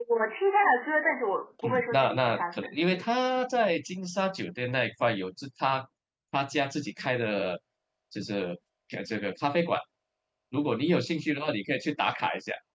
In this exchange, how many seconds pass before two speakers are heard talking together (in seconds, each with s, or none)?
1.6 s